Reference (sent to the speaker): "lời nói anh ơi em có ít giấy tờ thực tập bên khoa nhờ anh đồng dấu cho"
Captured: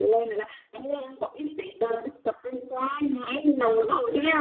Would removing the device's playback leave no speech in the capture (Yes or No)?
Yes